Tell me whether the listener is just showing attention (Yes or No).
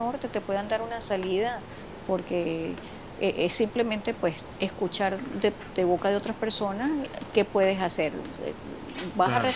Yes